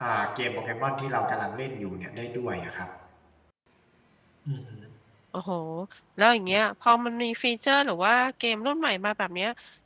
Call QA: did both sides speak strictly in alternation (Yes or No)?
Yes